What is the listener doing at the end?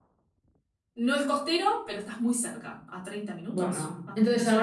taking over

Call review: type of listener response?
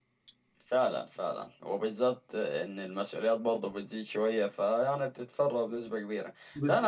listening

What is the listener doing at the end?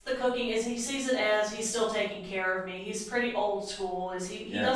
listening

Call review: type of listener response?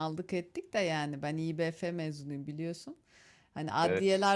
listening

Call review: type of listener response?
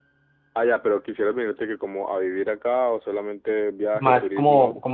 taking over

